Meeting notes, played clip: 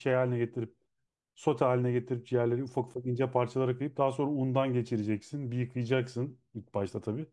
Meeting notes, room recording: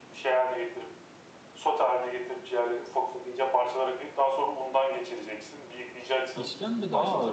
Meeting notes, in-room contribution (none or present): present